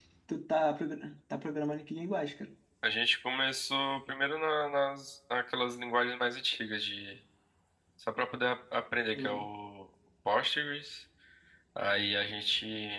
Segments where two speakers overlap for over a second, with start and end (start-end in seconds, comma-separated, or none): none